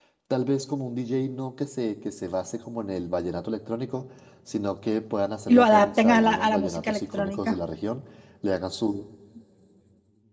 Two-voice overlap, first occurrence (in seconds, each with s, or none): 5.5 s